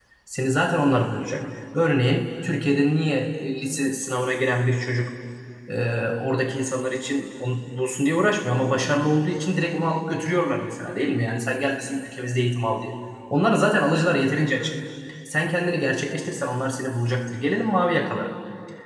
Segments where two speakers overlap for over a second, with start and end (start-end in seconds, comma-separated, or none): none